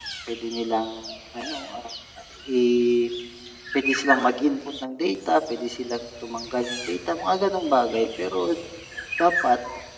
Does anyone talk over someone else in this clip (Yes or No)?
No